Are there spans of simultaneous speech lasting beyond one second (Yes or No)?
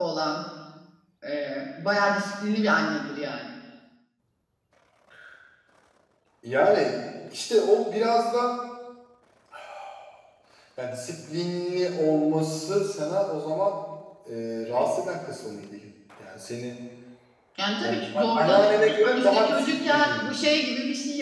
Yes